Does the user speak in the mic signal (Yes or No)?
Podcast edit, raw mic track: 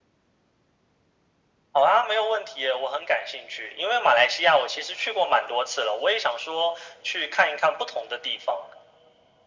No